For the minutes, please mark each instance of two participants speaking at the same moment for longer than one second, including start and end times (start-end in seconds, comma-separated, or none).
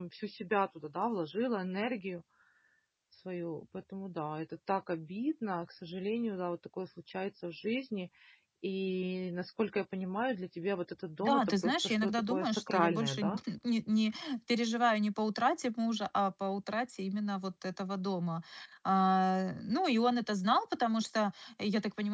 11.2-13.2